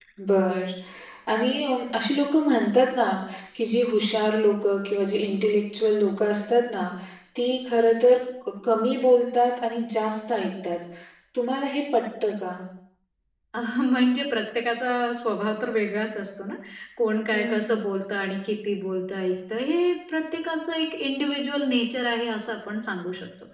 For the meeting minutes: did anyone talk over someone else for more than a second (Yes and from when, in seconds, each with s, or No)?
No